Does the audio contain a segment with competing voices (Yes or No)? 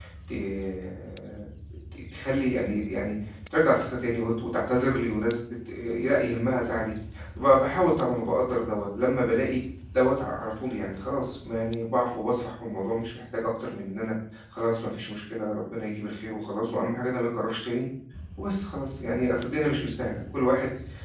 No